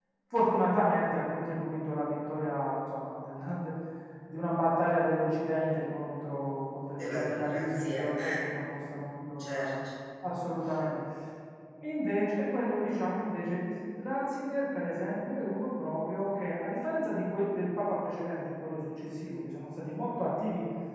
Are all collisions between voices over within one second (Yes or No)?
No